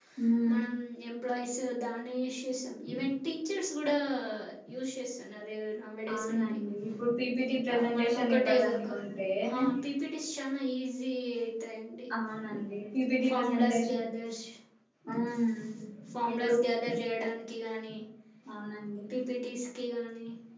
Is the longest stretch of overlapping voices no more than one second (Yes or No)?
No